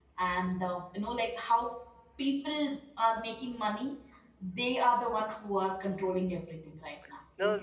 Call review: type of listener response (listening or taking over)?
taking over